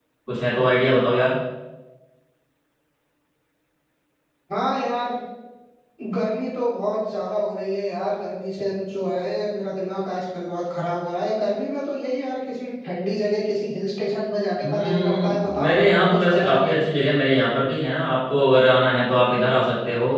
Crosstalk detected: Yes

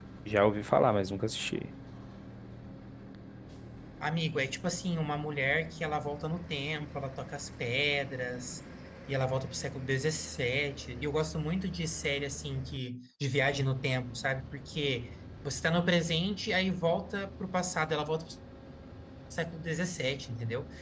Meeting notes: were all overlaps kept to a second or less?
Yes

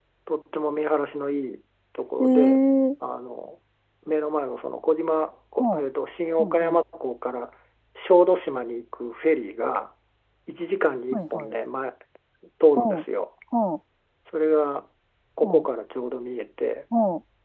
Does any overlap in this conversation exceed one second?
No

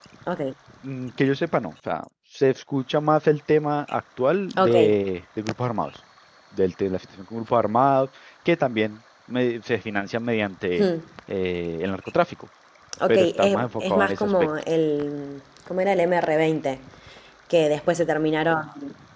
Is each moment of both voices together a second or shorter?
No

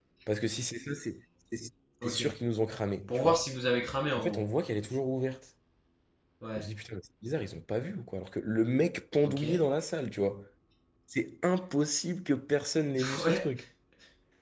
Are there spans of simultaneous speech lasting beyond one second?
No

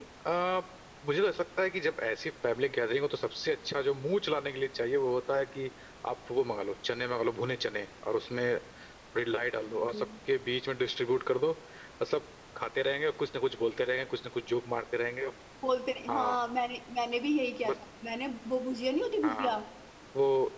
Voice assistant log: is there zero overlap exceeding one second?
Yes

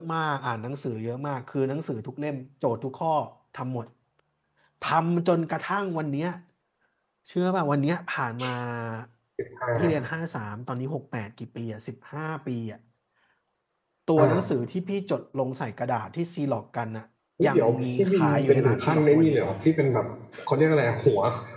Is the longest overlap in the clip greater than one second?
Yes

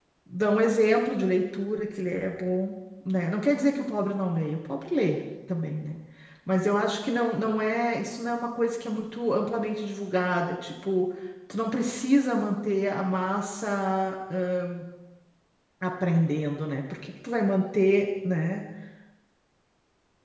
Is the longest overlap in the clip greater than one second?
No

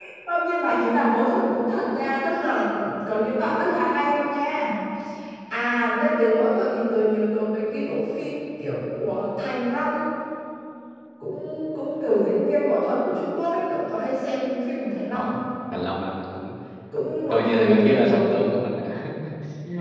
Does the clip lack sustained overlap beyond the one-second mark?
No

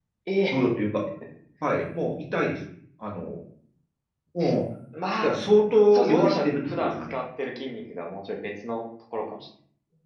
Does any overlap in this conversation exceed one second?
Yes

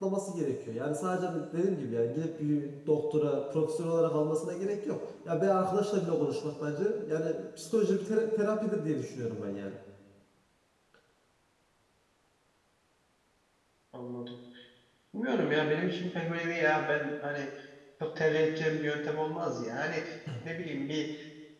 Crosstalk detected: No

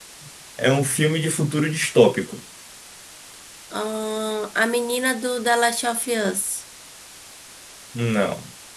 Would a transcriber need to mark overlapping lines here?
No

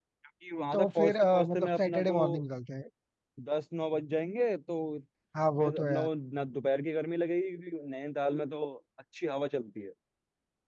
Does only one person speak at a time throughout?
No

